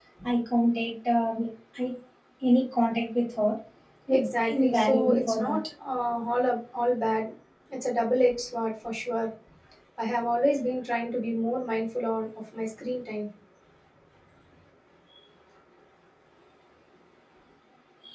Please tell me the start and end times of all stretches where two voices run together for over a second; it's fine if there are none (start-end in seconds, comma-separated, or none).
4.1-5.6